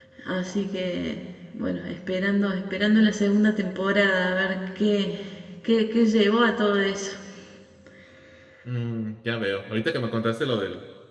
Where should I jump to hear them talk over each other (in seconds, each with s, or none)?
none